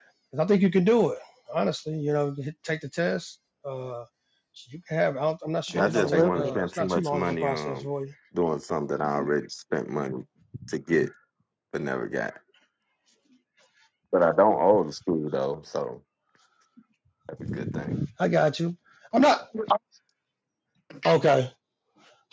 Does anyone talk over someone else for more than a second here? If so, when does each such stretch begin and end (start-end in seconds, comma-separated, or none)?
5.7-7.9